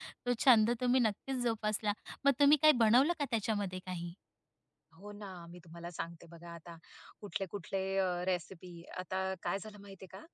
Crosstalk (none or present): none